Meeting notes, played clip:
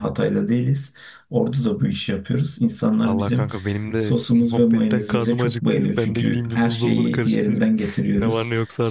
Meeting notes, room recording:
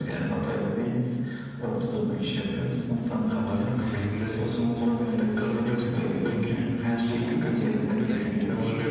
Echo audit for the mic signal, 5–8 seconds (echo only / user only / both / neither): both